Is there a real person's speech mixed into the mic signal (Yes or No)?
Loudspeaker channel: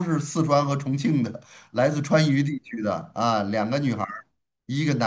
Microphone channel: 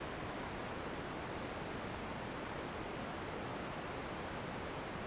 No